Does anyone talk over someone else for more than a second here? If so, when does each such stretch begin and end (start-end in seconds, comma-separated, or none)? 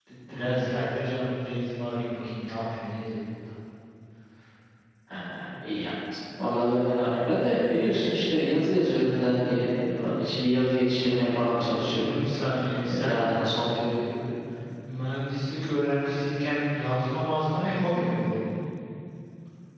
none